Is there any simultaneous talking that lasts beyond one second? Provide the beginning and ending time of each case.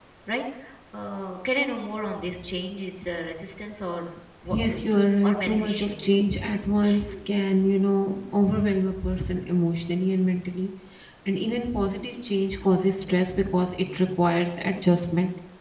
4.4-6.0

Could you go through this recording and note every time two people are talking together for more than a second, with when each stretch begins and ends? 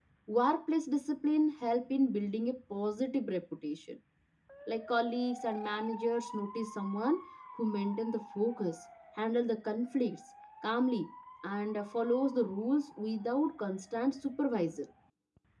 none

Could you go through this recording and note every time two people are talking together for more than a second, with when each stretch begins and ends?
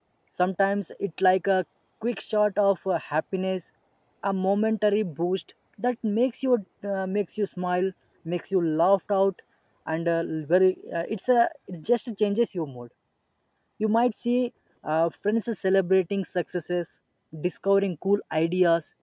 none

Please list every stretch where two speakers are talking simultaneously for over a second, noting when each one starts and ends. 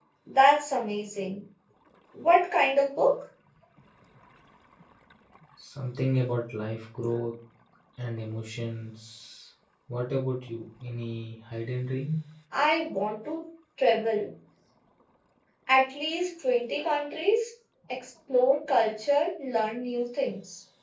none

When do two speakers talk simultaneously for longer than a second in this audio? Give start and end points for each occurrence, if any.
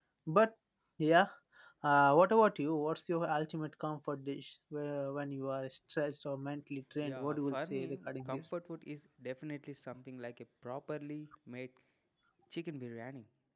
7.0-8.4

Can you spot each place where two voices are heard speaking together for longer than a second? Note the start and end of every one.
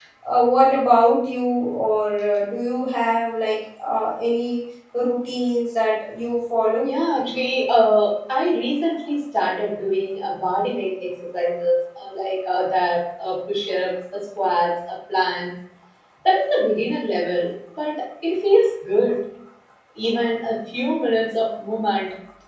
none

